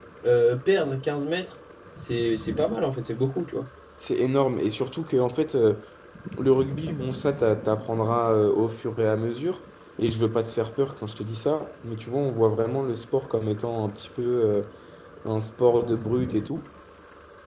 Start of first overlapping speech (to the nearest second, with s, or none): none